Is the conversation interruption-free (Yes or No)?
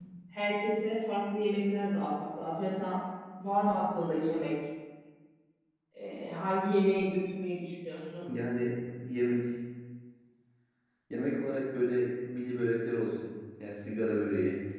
Yes